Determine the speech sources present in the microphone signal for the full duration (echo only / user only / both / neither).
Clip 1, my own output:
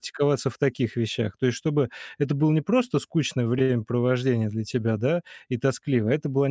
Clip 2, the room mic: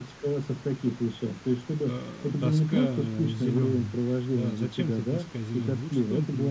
both